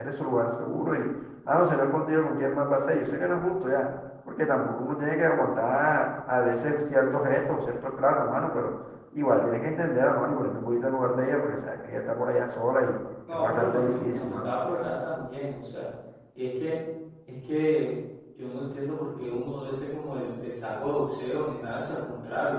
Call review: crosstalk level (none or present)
present